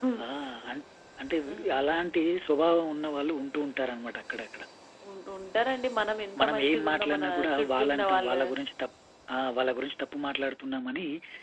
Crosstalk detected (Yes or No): Yes